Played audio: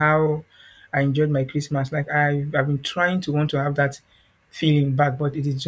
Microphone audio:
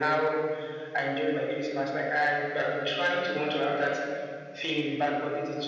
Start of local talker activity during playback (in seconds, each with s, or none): none